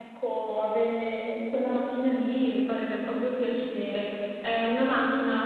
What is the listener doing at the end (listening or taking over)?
listening